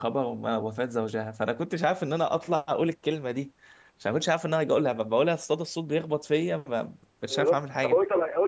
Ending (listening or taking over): taking over